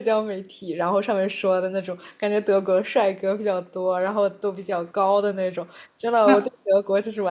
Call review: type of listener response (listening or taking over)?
listening